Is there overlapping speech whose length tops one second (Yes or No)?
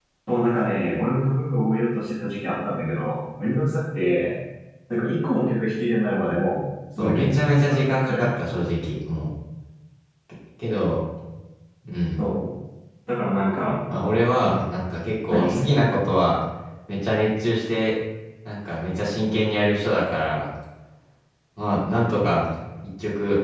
Yes